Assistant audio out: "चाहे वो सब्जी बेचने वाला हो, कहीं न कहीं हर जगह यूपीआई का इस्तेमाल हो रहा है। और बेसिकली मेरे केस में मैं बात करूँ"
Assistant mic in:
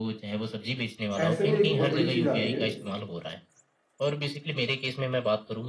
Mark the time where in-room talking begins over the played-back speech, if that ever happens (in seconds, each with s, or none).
1.2 s